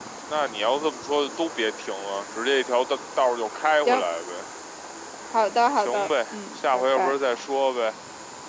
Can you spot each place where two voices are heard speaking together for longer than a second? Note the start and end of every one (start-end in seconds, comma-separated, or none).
5.8-7.2